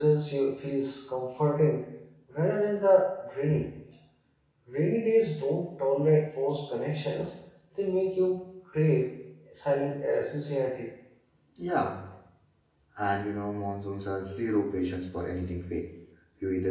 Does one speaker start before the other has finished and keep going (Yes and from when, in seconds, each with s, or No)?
No